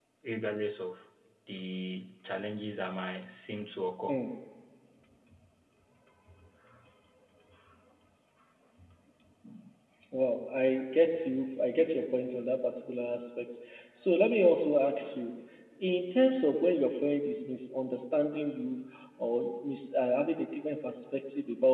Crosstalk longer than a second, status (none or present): none